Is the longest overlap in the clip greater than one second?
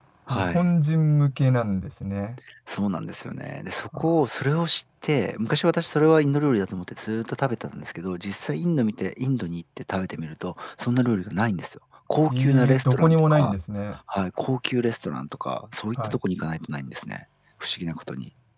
Yes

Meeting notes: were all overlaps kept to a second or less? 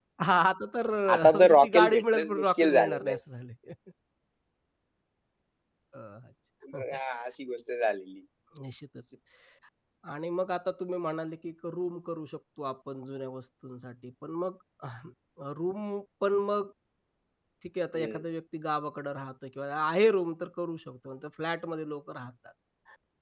No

